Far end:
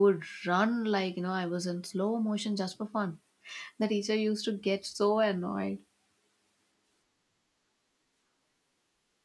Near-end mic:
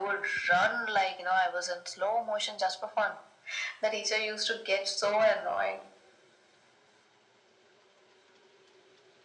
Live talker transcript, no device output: none

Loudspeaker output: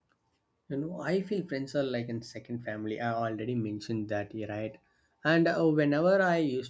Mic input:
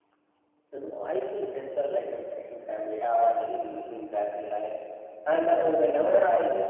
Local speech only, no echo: none

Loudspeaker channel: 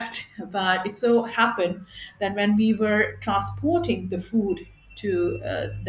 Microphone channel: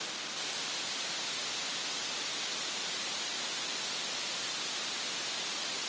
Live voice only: none

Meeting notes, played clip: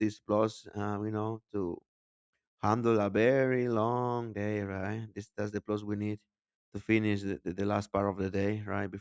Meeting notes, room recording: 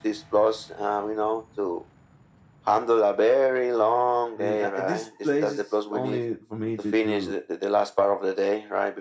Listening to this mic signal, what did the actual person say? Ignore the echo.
I mean, uh, this place is only for me to to,

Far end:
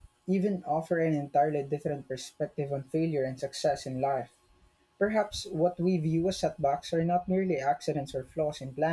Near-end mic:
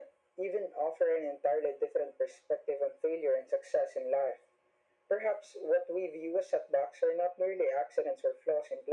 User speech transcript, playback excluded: none

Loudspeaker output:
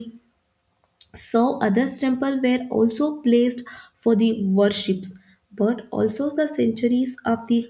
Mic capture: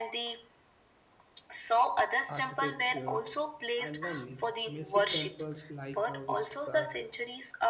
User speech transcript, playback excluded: architecture, and learning. Massive temples like uh, Visa,

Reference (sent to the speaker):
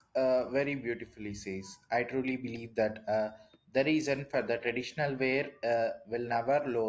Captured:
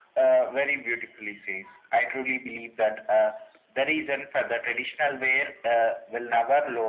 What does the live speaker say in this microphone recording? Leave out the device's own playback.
none

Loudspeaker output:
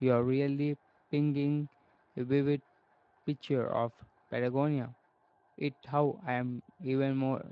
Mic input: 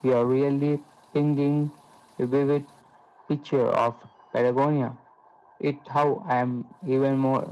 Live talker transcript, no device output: none

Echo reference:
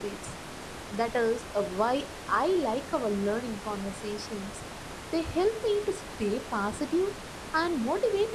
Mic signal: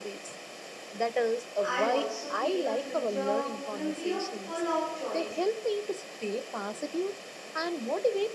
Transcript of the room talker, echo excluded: I also feel the future will be a full of choice.

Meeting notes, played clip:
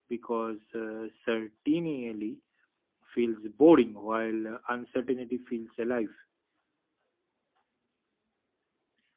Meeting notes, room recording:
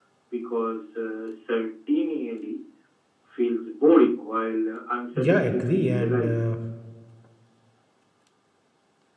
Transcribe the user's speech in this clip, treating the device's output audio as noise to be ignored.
Yeah, I agree, and uh,

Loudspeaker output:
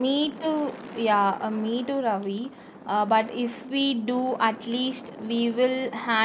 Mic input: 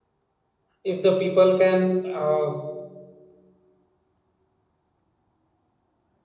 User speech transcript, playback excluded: if the people can uh,

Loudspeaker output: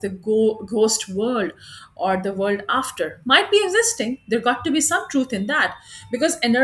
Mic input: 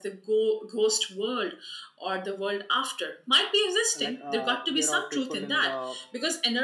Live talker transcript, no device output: like uh, there are people in the

